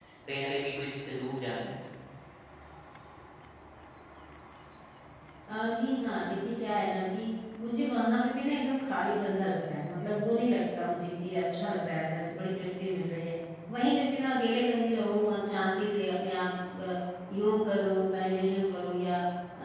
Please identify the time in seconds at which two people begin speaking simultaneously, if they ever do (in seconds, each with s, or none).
none